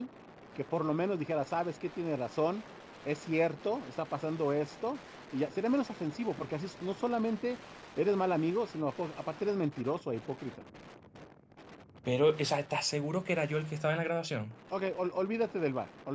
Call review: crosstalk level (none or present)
none